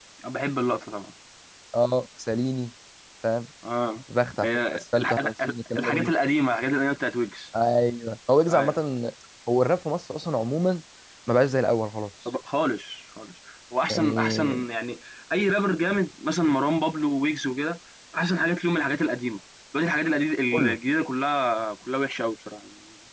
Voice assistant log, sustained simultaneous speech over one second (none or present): present